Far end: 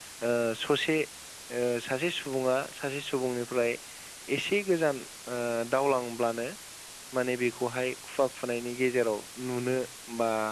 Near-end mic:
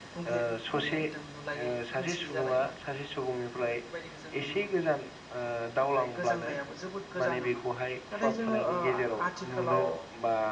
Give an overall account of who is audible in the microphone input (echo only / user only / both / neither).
both